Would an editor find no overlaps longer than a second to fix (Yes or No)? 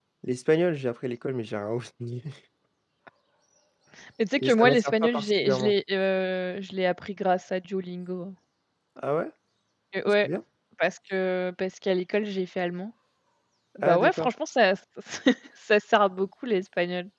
No